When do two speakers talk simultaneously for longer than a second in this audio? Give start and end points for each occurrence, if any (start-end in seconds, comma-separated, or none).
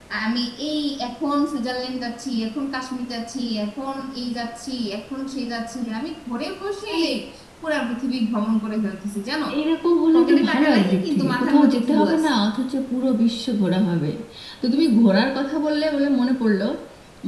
10.1-12.3